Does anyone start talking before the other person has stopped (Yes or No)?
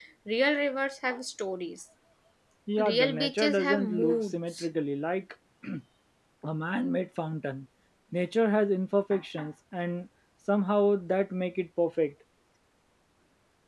Yes